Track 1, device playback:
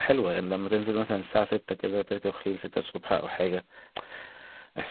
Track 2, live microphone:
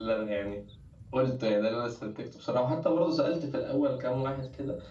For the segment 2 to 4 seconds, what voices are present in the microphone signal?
user only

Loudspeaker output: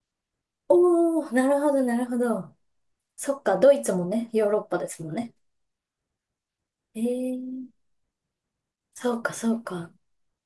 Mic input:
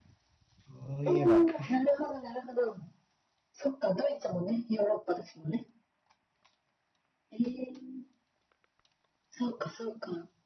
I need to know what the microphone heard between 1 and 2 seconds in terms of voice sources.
both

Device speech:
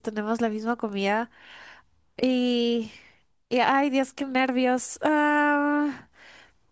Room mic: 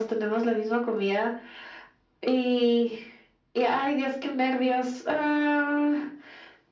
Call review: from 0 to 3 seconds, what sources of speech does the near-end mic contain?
echo only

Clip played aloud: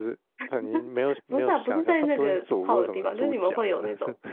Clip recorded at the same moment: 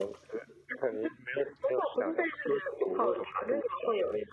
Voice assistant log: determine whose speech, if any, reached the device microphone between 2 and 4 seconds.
echo only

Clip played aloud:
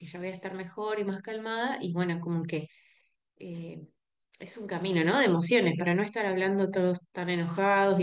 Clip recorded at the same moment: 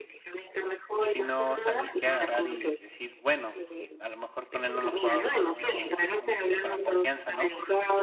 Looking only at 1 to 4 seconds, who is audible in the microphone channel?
both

